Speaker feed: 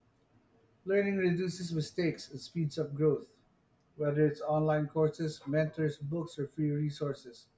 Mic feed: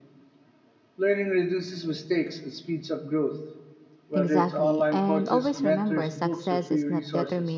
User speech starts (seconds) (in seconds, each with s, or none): 4.1 s